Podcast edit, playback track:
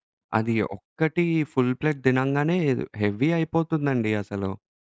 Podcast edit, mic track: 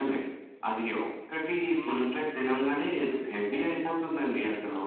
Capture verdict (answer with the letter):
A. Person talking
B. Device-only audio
A